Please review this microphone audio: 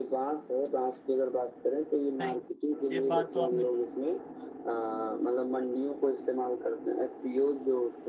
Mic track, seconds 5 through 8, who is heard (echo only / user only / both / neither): echo only